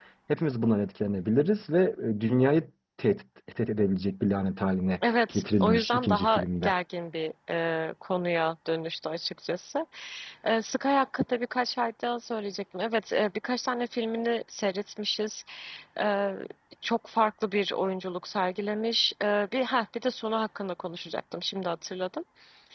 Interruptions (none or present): present